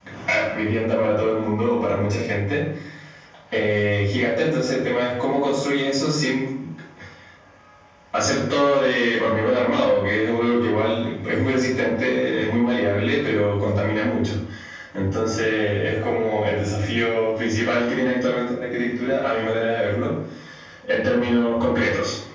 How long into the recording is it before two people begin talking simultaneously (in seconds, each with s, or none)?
none